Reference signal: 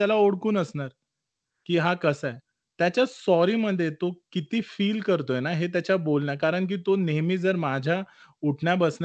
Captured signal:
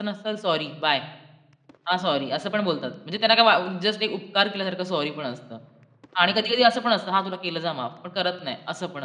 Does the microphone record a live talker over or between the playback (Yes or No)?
Yes